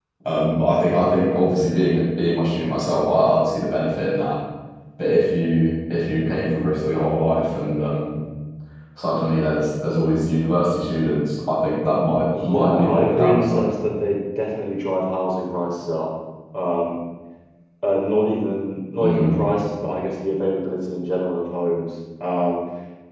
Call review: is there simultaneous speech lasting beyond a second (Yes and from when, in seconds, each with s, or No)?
Yes, from 12.4 s